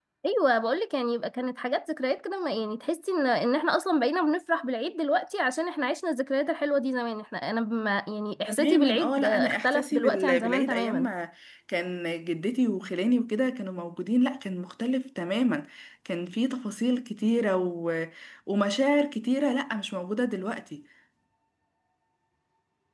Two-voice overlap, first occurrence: 8.5 s

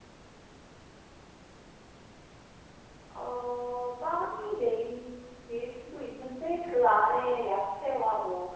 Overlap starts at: none

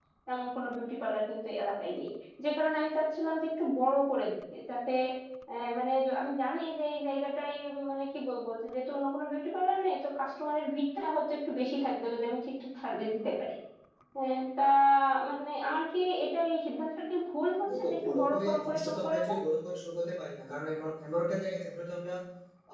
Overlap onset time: 17.6 s

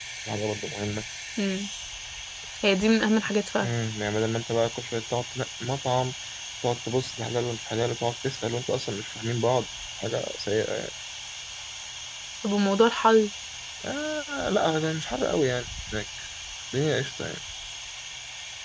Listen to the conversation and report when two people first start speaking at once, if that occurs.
none

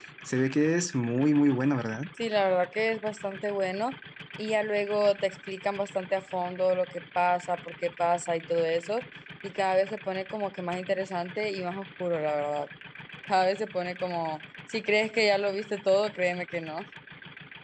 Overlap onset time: none

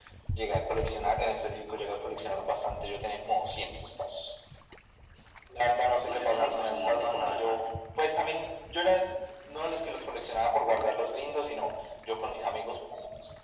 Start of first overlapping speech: 6.0 s

